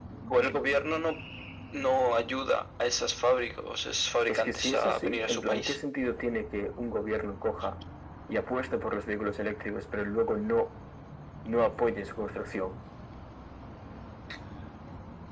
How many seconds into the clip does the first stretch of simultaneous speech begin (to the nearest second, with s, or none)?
4 s